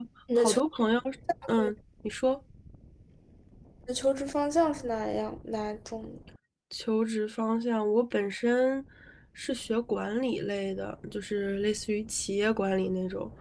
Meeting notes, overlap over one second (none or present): none